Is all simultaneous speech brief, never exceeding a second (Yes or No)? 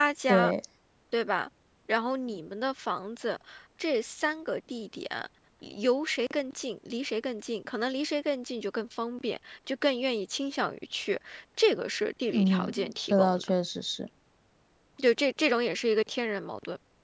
No